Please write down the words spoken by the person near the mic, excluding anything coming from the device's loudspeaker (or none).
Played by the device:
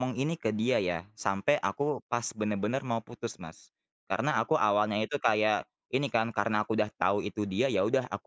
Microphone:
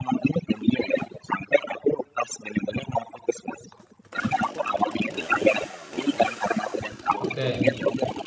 oke.